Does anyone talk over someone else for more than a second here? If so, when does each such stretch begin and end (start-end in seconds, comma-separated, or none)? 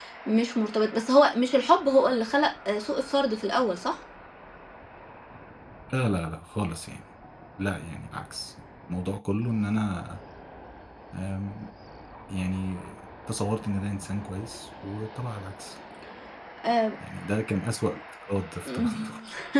none